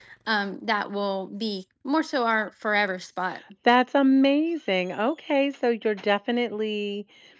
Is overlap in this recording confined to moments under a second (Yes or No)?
Yes